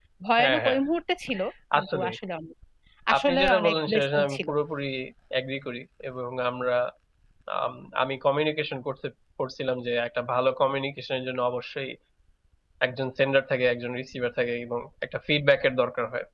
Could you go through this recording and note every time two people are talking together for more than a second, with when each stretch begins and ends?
3.2-4.5

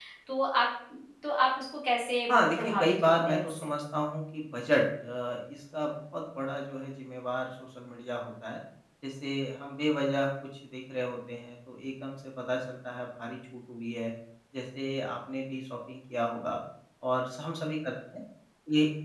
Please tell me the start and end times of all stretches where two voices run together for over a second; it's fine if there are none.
2.3-3.7

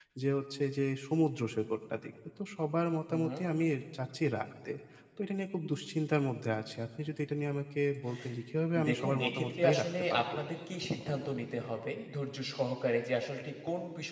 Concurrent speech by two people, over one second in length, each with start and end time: 8.9-10.4

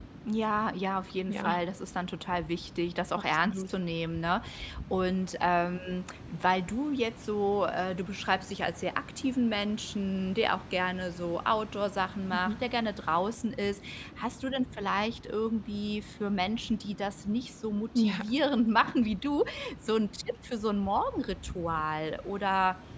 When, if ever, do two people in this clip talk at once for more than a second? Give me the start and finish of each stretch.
none

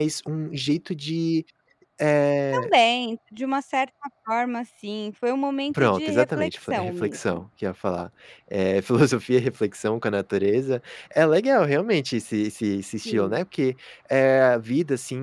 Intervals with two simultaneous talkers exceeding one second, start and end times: 5.7-7.4

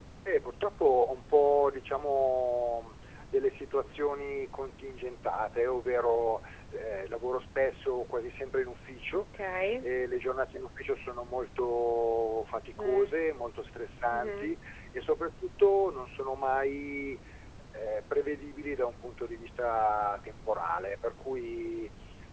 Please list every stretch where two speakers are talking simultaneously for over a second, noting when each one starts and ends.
none

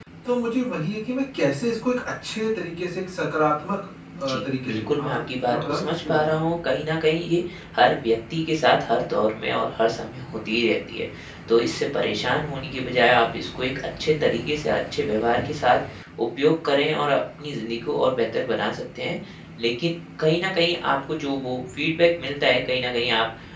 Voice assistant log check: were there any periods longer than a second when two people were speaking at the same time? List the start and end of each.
4.2-6.4

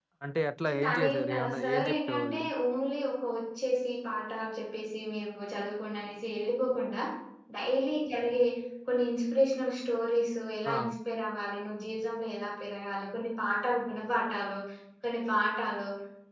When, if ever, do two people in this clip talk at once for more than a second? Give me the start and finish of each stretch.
0.7-2.4

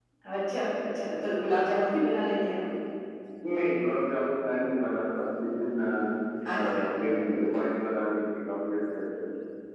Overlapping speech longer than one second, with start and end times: none

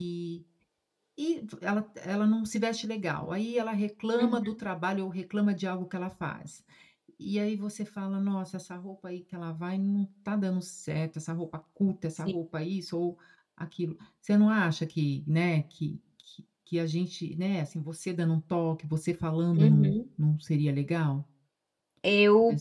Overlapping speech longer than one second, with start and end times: none

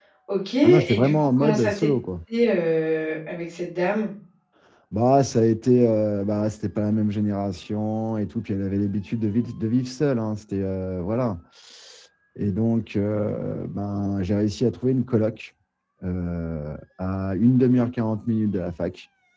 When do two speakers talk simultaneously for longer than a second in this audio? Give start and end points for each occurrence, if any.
0.6-1.9

